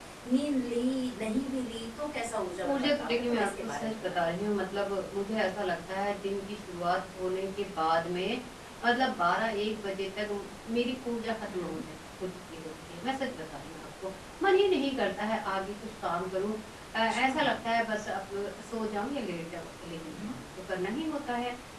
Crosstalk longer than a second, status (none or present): present